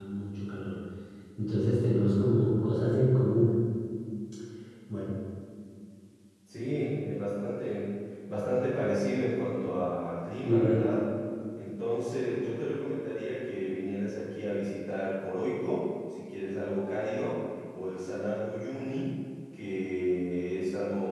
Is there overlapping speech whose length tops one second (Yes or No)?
No